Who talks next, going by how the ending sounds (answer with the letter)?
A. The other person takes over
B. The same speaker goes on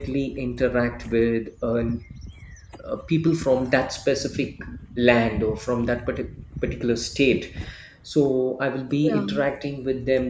B